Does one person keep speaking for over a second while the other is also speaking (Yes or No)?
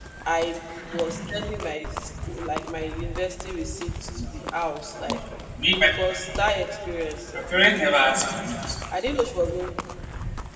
No